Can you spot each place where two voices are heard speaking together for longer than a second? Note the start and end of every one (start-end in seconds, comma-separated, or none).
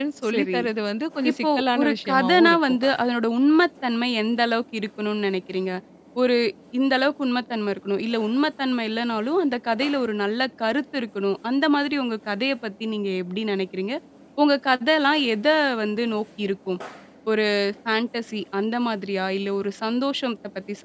1.3-2.8